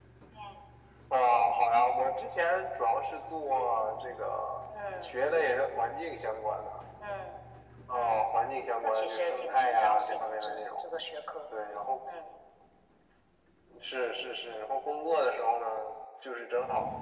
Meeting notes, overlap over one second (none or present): present